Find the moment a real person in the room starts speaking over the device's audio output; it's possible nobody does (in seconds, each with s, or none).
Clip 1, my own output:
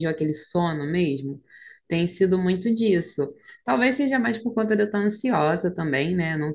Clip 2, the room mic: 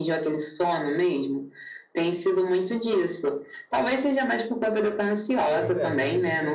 5.6 s